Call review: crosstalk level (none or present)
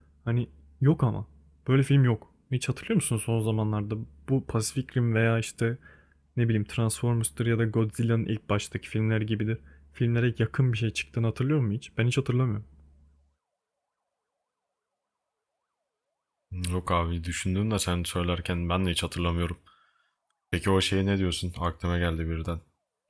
none